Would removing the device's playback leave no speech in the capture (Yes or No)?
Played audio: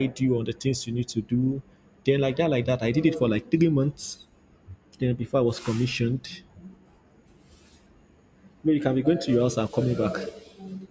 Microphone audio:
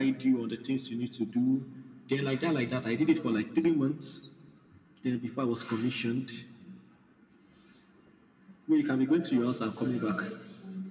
Yes